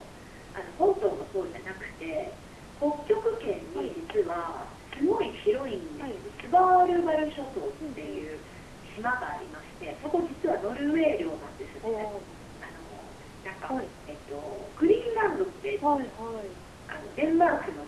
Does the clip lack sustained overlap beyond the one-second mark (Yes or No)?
Yes